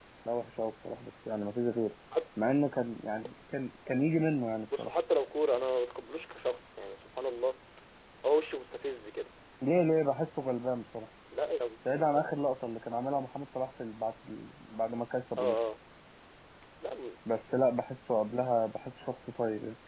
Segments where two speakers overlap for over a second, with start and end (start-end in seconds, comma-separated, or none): none